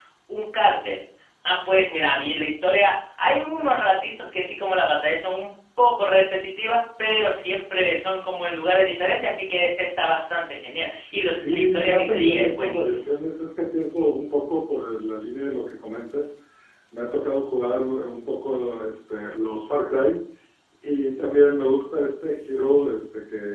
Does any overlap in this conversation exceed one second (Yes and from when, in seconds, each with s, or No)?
Yes, from 11.4 s